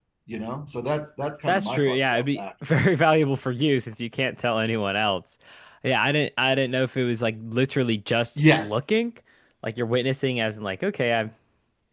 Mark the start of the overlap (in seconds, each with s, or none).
1.5 s